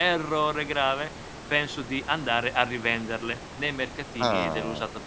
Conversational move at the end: listening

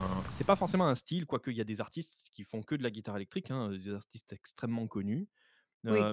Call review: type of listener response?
listening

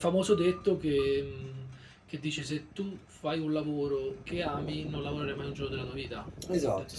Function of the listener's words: taking over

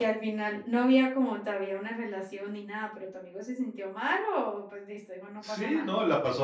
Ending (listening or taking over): taking over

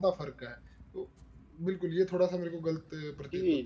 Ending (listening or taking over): taking over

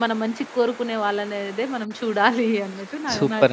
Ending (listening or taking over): taking over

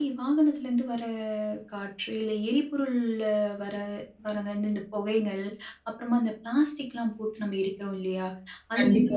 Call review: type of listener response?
listening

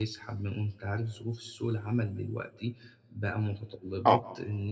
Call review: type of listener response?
listening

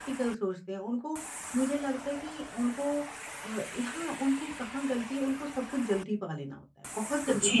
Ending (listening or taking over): taking over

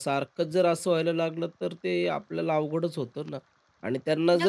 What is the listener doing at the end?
listening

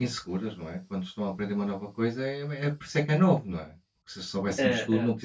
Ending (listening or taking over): listening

